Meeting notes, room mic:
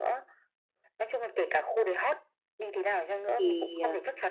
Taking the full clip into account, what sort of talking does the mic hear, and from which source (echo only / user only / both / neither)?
both